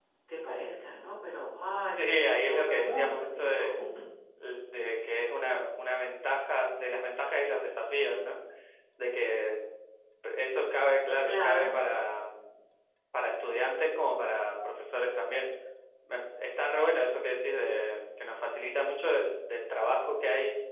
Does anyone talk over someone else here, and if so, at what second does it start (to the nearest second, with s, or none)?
2 s